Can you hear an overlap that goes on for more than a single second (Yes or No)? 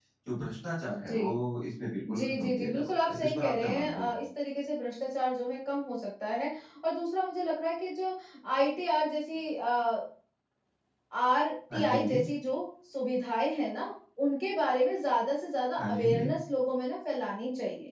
Yes